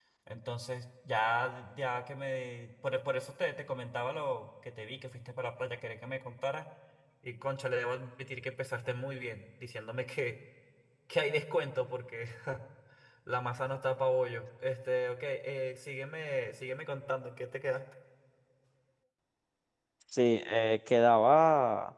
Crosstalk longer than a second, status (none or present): none